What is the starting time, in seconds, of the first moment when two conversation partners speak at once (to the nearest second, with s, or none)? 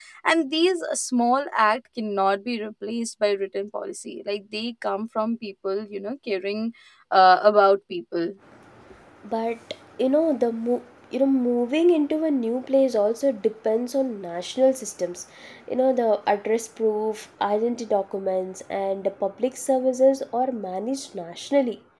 none